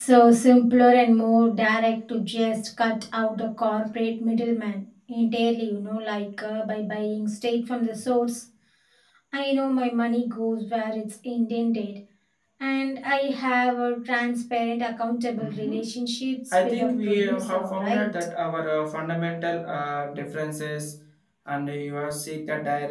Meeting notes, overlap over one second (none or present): present